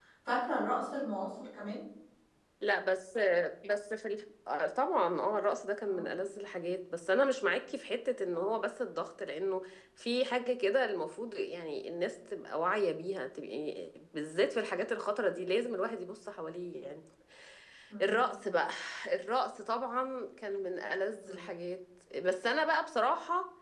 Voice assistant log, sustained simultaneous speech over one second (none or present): none